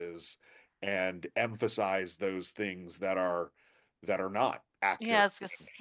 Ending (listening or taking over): taking over